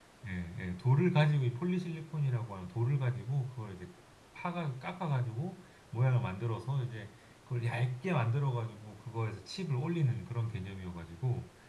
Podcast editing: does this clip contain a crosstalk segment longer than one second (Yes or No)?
No